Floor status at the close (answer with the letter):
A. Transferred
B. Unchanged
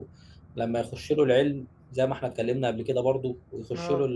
B